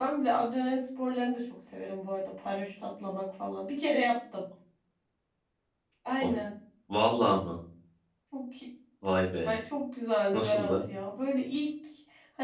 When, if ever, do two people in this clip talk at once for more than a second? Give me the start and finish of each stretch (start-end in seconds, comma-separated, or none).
none